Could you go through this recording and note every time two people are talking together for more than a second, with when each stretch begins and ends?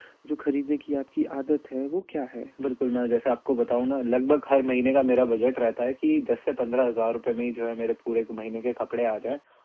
none

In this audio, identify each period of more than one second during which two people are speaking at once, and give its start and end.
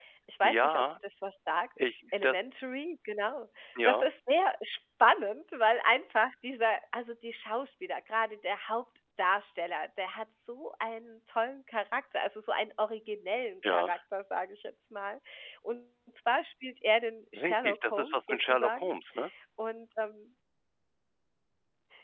17.4-18.9

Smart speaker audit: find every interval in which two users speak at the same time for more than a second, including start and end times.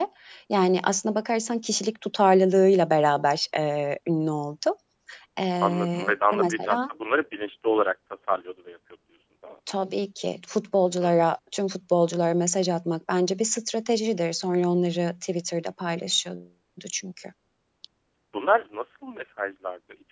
5.6-6.8

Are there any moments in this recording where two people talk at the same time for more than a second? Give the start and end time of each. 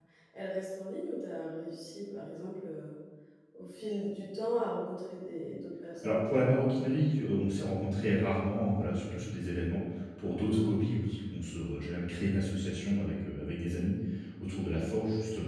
none

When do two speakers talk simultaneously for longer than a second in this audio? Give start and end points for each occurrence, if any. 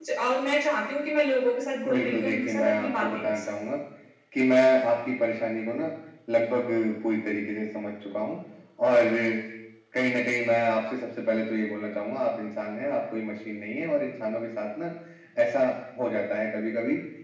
1.9-3.4

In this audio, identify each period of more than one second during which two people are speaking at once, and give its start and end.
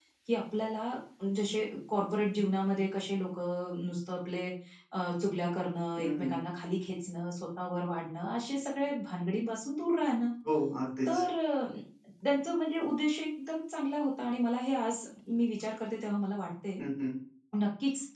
none

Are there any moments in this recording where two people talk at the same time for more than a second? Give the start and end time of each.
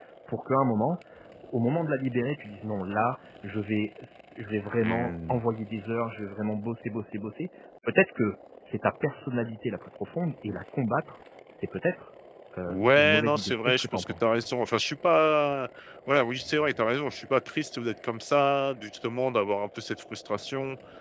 12.7-14.2

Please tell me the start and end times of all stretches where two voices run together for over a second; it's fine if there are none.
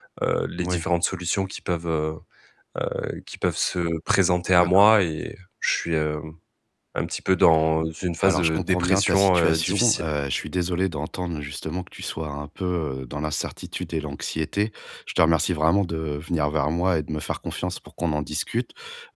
8.2-10.0

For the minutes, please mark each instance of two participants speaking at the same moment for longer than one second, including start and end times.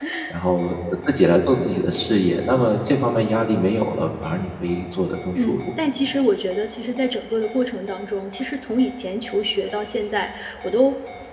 none

